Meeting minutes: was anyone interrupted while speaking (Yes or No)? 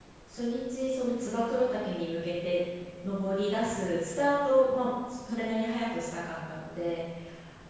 No